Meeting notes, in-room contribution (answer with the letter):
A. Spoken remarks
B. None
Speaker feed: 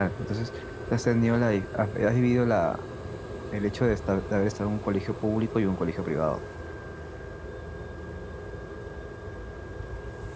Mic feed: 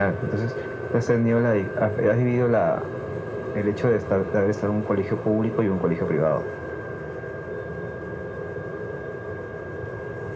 B